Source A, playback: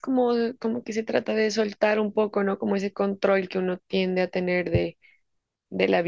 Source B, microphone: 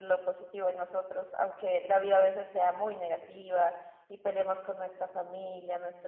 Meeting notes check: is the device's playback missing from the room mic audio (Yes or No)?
Yes